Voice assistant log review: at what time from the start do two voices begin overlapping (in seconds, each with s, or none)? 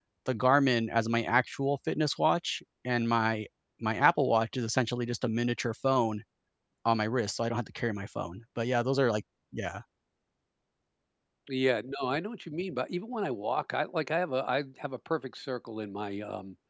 none